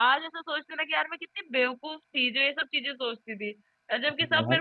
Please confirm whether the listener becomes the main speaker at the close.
No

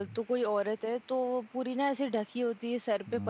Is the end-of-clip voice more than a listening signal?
No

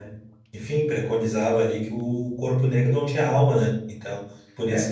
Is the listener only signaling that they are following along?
No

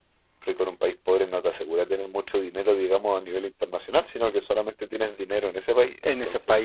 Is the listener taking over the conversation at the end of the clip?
Yes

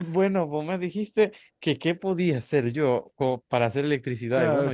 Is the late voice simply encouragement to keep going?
No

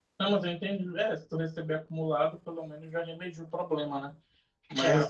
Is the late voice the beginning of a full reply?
No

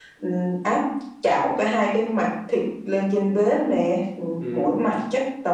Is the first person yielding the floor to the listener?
No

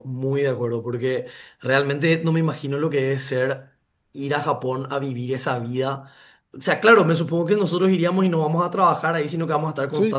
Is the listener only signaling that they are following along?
Yes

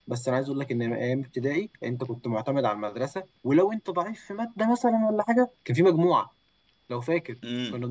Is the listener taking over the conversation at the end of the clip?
Yes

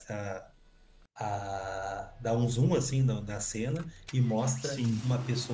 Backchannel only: Yes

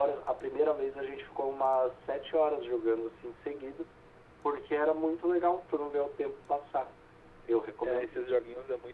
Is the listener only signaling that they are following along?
No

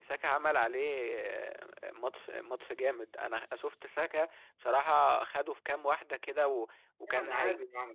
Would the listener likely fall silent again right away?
No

